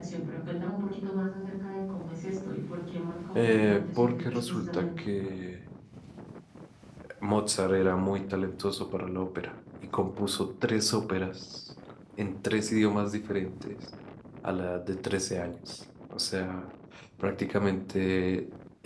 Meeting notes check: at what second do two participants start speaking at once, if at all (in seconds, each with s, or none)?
3.4 s